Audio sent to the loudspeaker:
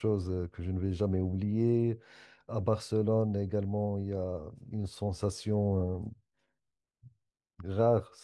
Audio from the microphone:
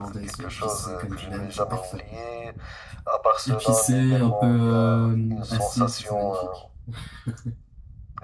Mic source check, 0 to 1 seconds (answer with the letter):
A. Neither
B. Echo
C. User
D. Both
D